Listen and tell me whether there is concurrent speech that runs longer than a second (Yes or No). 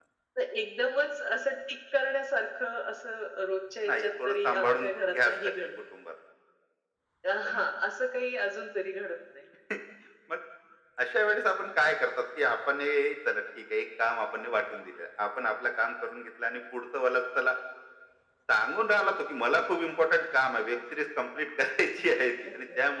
Yes